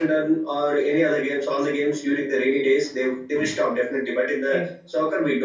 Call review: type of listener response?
listening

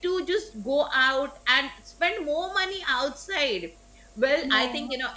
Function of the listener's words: listening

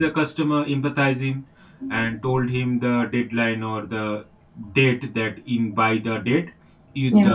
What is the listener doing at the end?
listening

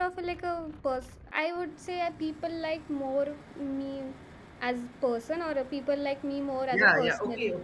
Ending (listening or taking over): taking over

